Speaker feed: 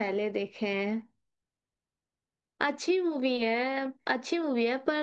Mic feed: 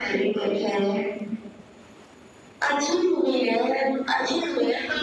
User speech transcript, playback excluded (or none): none